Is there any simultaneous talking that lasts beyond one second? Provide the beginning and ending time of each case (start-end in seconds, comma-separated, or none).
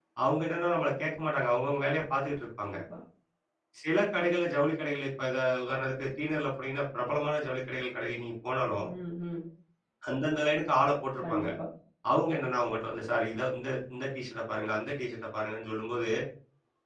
none